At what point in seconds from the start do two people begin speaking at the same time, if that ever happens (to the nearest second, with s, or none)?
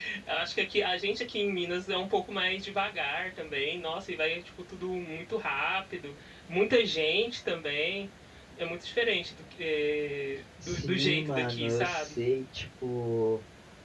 11 s